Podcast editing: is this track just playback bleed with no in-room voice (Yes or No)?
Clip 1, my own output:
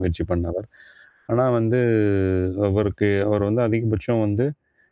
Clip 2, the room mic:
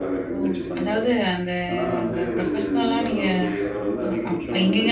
No